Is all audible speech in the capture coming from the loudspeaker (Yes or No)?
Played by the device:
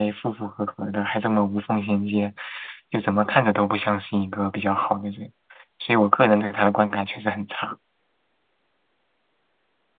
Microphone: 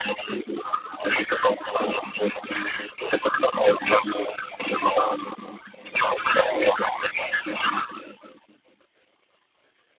Yes